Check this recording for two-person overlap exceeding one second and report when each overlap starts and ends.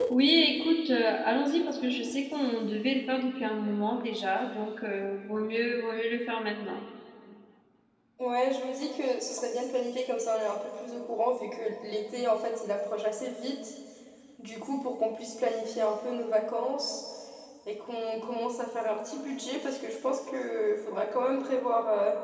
none

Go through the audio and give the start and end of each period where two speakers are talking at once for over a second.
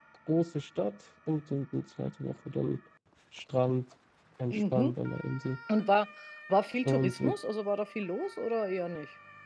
none

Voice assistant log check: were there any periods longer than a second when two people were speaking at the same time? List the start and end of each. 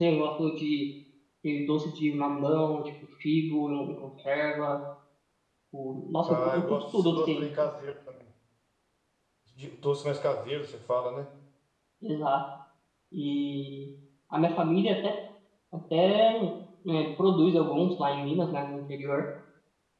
6.3-7.7

